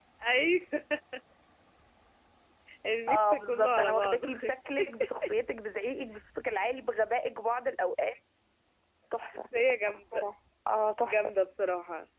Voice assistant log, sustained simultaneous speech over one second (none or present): present